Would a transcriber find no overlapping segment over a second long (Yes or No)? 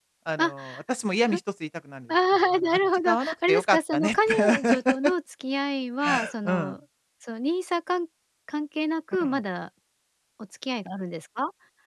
No